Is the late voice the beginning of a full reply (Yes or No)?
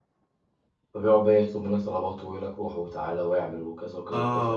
Yes